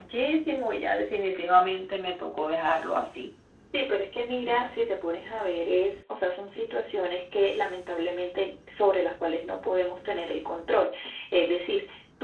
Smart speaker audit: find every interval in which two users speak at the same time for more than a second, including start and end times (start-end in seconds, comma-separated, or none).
none